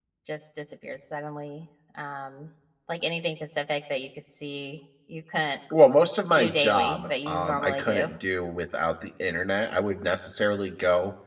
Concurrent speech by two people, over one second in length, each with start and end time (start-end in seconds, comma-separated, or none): 6.4-8.1